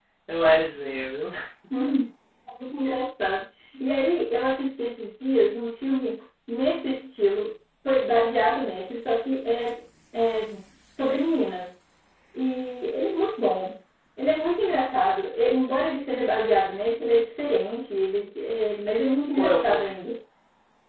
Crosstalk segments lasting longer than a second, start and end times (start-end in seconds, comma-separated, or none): none